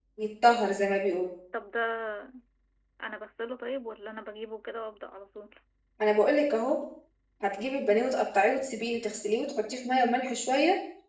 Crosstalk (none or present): none